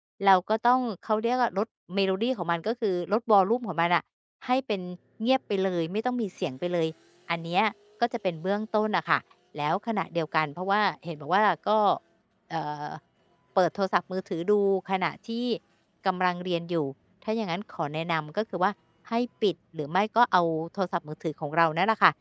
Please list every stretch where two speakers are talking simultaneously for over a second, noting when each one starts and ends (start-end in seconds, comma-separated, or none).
none